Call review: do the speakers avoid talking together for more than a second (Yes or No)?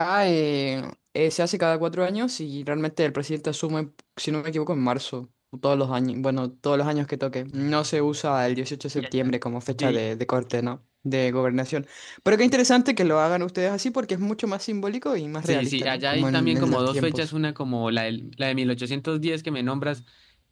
No